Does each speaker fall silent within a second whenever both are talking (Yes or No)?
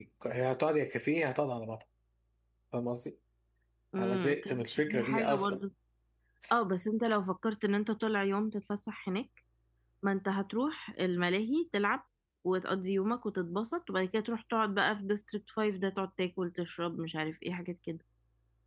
No